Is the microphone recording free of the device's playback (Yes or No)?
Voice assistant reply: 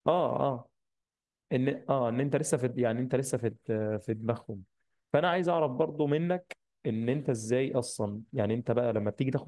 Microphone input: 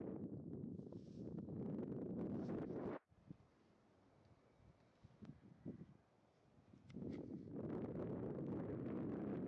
Yes